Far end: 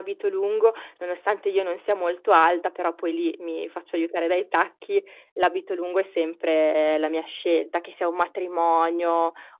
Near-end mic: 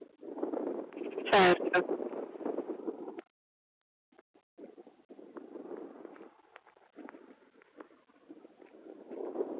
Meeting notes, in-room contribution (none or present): present